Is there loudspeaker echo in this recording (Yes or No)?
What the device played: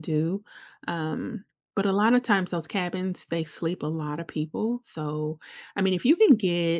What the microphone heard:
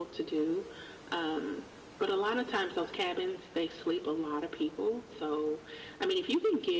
Yes